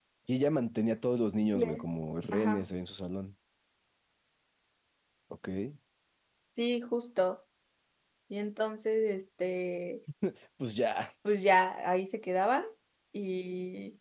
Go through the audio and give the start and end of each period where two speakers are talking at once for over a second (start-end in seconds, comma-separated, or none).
none